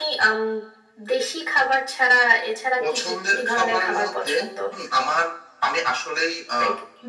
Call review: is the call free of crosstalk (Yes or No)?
No